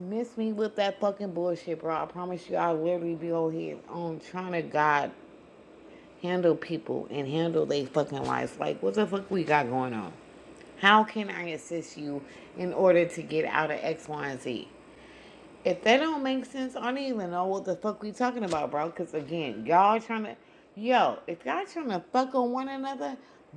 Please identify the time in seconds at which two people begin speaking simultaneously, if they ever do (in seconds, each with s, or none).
none